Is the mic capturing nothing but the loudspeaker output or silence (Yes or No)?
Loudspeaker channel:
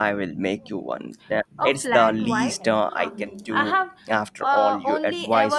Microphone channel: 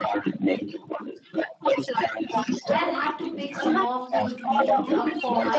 No